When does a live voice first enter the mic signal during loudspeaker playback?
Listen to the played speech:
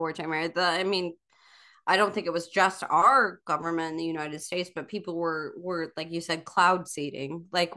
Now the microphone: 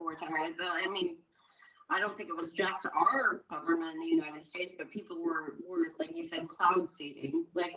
none

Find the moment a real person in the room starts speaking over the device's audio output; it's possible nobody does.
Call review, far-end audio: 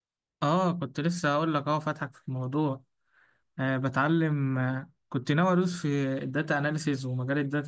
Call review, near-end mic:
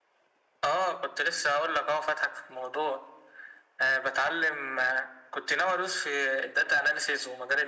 none

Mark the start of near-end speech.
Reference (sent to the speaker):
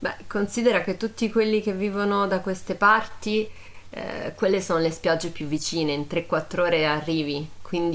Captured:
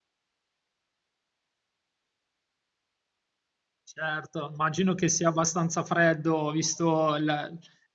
3.8 s

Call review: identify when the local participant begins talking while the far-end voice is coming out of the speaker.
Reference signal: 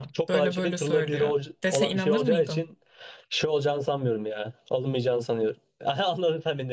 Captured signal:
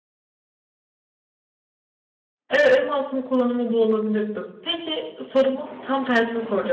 2.5 s

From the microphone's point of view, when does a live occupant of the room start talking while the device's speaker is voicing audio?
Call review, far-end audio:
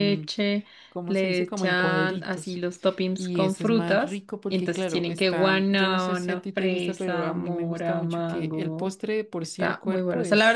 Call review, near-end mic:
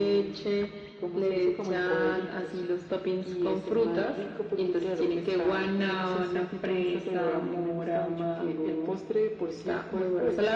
none

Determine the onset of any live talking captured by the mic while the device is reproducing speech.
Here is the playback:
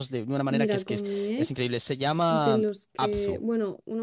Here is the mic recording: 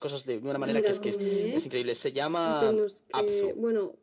0.6 s

